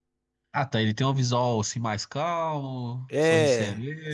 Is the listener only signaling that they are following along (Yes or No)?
No